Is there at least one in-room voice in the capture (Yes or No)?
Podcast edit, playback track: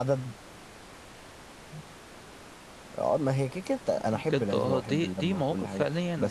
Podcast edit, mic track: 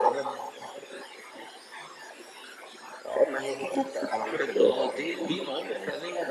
No